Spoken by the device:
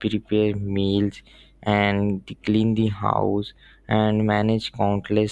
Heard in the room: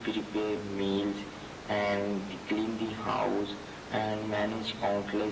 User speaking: No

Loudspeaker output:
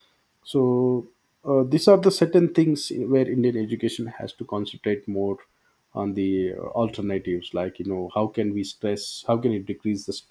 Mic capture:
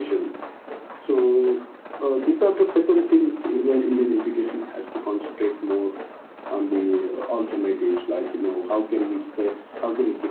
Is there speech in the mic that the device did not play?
No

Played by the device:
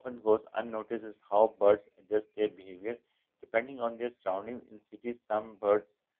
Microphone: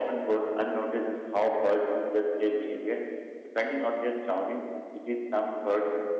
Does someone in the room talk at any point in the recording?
No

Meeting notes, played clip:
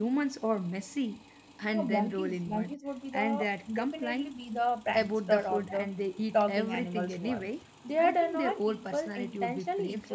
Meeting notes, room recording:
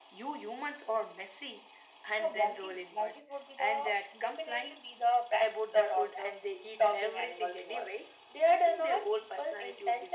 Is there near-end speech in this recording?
No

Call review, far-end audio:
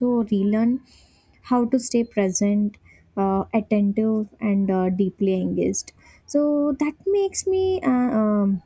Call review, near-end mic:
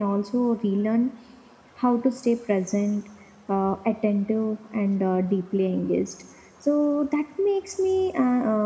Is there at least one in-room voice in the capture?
No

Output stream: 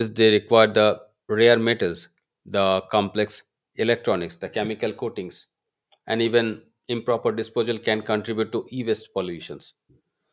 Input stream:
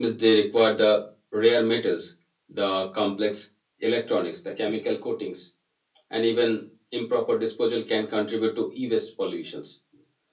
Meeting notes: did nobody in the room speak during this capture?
Yes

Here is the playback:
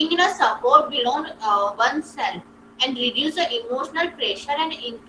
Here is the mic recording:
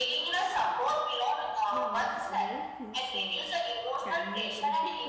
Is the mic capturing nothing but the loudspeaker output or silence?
No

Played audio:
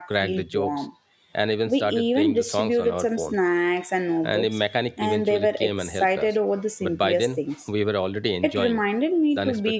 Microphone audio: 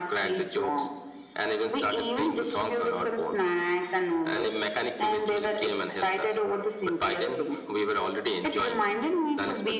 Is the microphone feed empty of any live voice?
Yes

